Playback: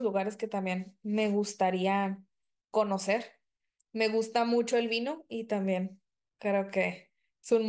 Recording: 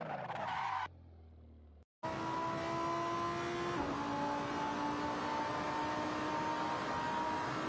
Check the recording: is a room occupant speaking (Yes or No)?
No